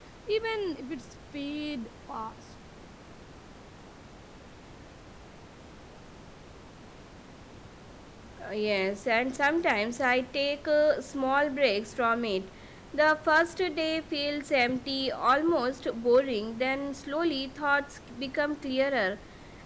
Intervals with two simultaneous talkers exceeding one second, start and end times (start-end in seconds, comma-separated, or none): none